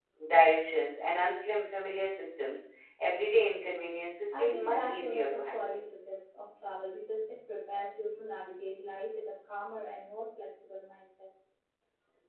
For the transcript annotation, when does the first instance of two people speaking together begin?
4 s

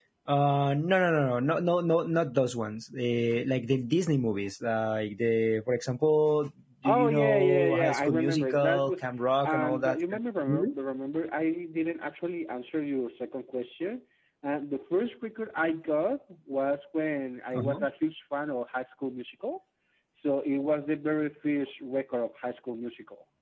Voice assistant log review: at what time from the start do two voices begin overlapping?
7 s

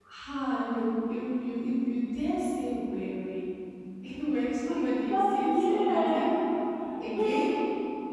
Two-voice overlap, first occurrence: 5 s

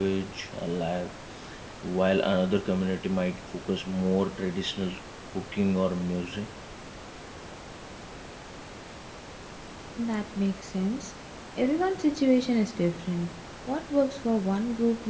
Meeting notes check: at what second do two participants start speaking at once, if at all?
none

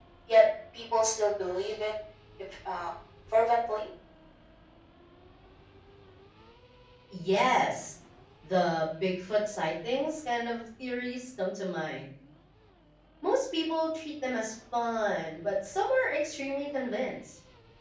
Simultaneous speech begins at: none

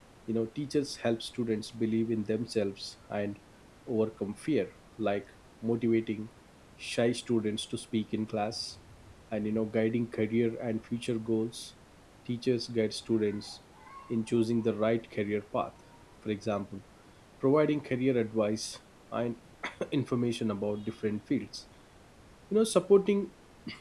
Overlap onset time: none

